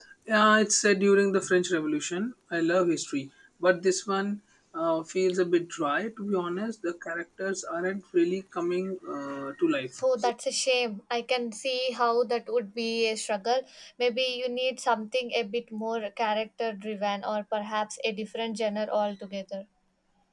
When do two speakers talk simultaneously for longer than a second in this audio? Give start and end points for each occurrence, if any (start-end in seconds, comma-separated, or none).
none